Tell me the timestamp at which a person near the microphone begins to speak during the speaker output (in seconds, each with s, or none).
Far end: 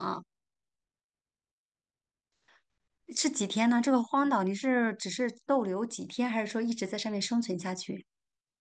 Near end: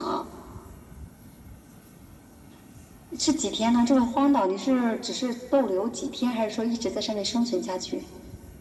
none